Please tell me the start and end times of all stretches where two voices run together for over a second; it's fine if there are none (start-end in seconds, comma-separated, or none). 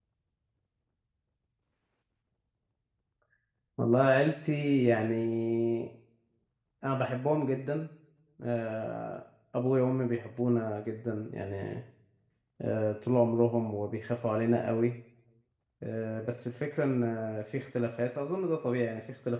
none